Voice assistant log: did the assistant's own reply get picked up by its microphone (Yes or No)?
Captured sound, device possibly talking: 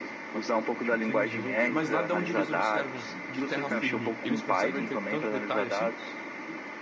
Yes